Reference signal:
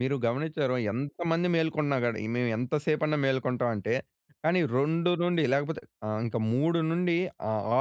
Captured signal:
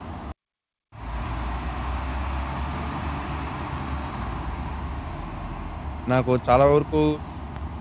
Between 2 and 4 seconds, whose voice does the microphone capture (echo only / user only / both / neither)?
neither